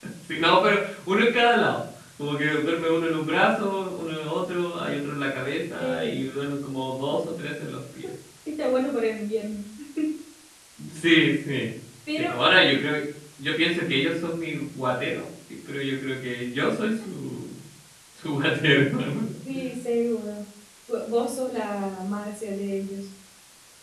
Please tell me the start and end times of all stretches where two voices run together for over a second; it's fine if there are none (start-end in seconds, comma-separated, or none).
none